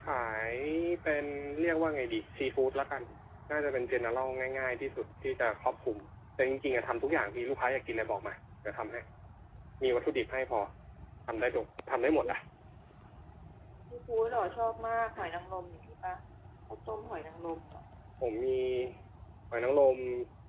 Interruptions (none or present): none